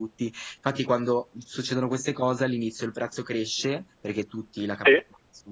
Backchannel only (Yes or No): Yes